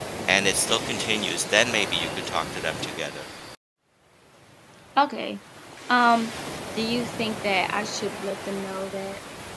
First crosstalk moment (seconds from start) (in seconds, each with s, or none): none